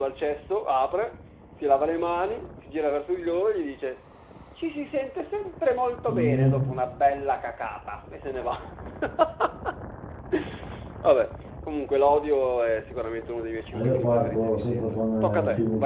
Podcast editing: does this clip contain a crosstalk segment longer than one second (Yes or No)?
Yes